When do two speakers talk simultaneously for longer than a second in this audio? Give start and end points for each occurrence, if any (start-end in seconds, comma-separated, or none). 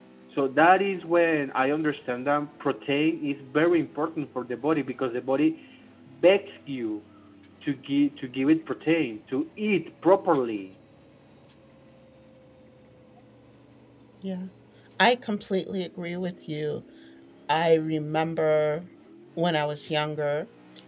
none